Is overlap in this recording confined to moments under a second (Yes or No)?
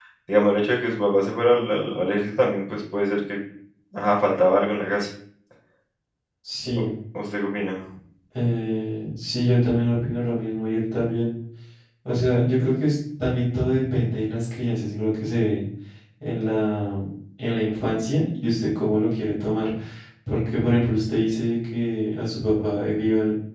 Yes